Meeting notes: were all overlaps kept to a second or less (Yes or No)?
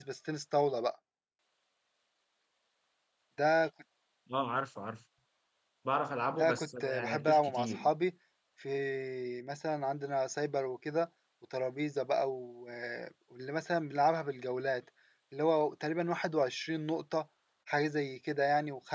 No